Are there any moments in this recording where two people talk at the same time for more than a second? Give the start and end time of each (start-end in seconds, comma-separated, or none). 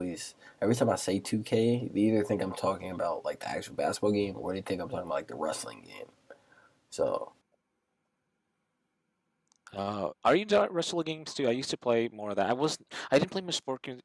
none